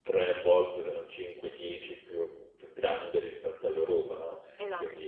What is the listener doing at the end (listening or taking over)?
listening